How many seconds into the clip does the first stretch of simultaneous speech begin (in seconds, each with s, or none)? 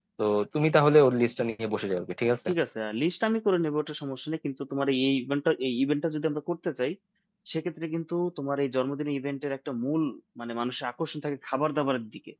none